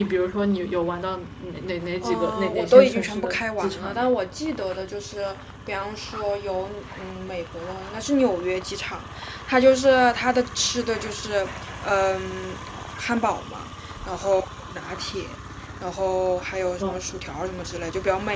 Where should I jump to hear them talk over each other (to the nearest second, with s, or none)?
2 s